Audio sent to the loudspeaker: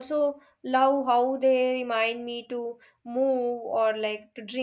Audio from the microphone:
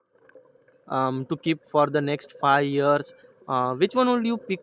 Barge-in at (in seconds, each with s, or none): 0.9 s